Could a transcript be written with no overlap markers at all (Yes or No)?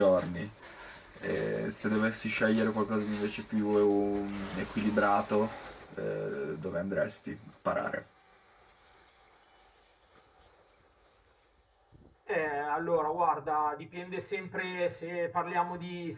Yes